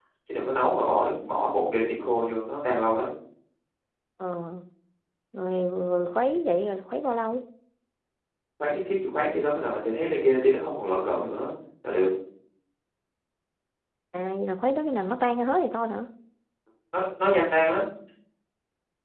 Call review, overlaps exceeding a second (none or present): none